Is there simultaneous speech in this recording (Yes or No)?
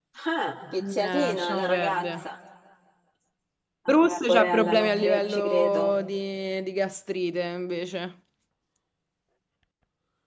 Yes